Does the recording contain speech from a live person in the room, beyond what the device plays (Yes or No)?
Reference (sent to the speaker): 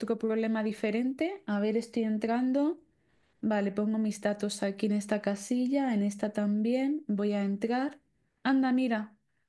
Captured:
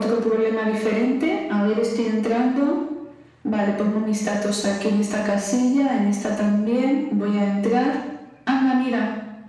No